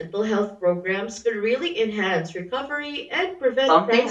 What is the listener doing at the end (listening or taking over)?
taking over